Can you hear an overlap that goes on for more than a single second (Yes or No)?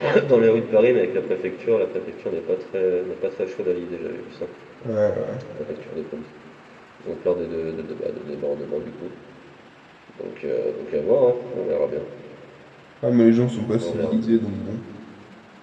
No